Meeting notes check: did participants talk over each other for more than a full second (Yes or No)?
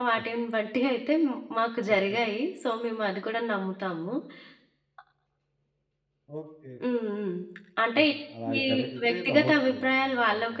Yes